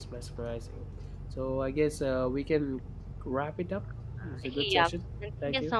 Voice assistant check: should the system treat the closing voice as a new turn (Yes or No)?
Yes